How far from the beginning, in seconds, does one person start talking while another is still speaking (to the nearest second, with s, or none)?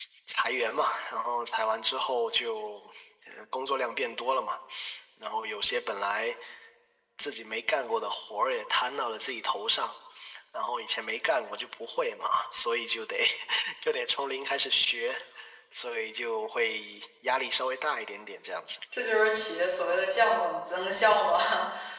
none